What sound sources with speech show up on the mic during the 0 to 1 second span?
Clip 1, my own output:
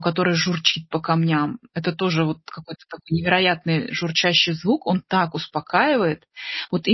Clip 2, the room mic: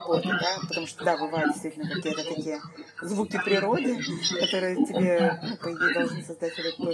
both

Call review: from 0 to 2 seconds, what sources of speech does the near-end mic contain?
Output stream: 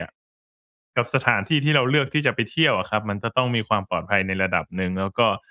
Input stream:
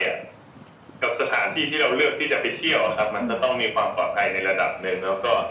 echo only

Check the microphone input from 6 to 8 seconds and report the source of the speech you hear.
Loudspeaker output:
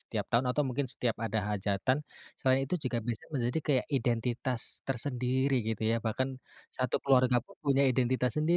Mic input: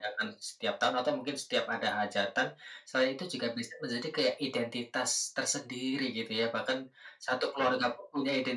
echo only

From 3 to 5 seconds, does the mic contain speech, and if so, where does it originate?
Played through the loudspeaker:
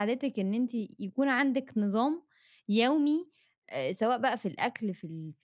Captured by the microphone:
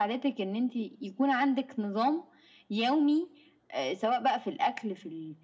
echo only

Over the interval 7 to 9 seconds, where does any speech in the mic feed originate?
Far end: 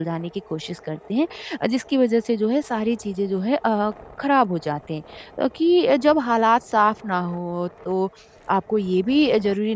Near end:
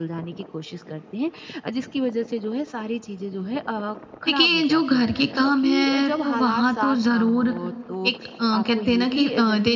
both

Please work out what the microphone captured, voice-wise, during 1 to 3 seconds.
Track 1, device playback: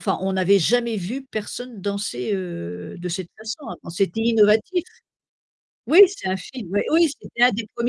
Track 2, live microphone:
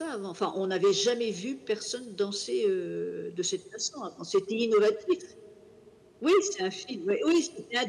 echo only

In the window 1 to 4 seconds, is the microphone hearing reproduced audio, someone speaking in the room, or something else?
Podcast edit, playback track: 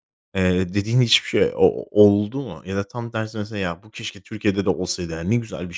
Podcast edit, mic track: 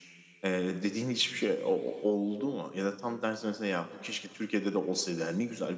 echo only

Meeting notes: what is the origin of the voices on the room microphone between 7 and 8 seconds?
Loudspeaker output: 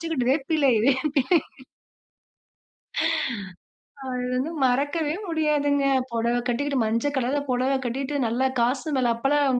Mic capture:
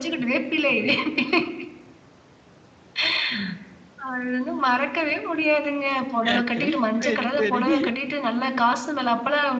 both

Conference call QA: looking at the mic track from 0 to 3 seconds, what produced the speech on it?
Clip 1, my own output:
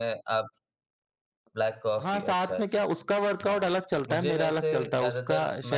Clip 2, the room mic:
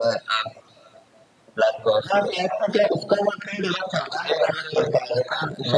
echo only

